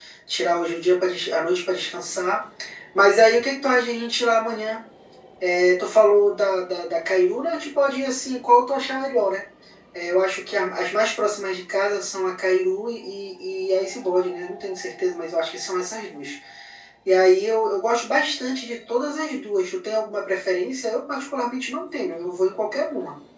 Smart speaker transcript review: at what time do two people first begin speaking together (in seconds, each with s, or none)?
none